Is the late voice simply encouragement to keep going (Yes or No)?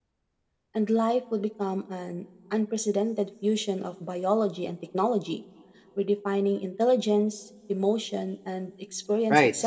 No